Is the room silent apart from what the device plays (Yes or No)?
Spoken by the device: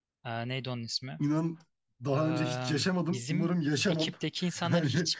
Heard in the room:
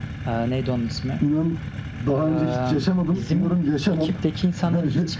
Yes